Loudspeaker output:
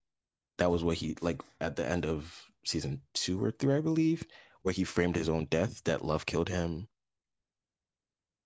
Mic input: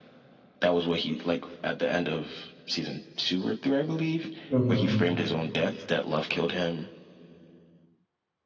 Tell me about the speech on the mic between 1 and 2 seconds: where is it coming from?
echo only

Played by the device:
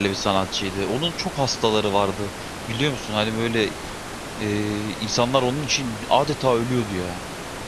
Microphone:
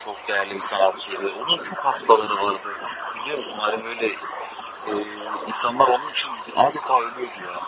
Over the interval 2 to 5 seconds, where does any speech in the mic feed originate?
echo only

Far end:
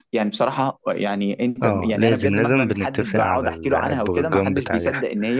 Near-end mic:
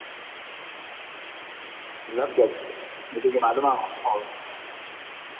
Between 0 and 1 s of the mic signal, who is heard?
neither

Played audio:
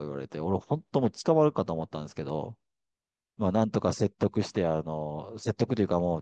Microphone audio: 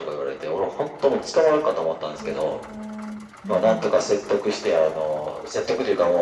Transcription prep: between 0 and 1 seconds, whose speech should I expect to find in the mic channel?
echo only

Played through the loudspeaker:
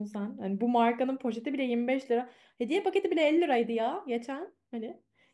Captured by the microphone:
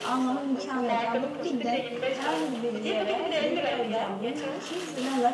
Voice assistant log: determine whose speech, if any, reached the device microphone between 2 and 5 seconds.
both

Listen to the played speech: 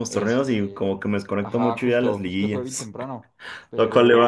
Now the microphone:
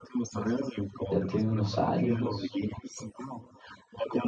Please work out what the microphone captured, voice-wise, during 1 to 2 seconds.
both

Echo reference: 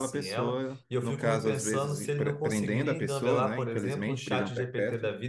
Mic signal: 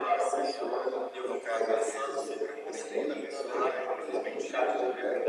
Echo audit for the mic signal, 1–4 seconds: echo only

